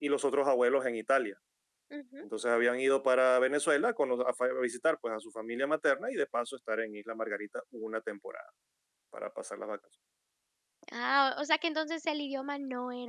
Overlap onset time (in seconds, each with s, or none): none